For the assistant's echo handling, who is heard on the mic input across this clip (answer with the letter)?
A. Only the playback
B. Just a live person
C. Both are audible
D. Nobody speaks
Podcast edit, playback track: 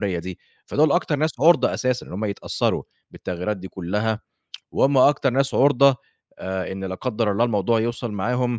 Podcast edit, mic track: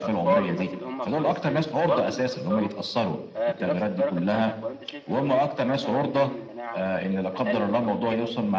C